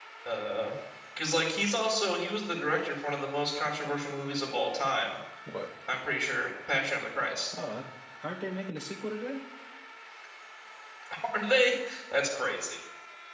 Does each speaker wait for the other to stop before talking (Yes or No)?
Yes